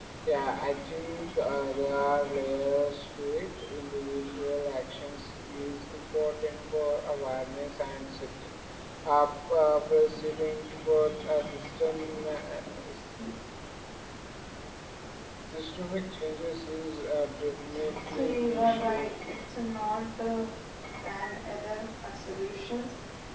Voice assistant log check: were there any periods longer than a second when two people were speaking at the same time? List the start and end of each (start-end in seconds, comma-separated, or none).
18.1-19.4